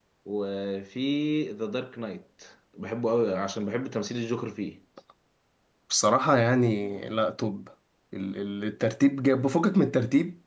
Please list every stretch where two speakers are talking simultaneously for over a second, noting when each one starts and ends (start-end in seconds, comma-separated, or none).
none